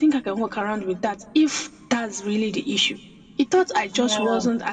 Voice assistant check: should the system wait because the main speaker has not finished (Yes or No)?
Yes